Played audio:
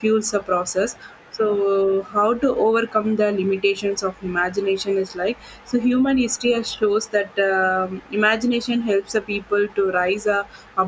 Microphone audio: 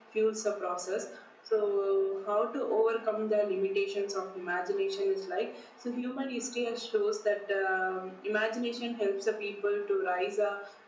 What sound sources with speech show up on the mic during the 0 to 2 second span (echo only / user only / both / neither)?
echo only